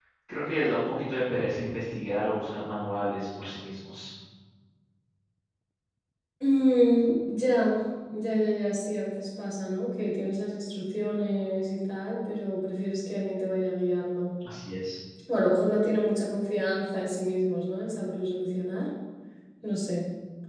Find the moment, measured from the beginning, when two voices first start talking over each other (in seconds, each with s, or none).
none